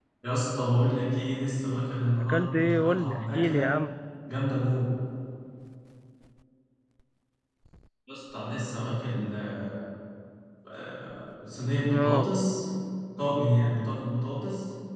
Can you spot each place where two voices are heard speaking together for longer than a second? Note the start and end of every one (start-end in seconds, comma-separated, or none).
2.2-3.7